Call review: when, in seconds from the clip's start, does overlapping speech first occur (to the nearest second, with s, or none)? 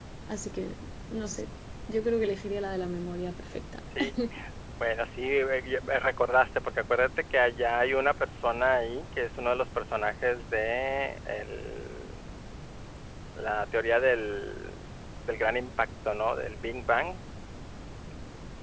none